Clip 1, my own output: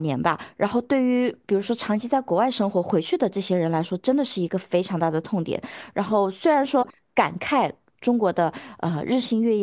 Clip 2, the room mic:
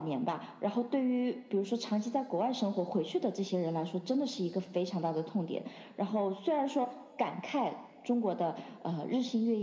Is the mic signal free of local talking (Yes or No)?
Yes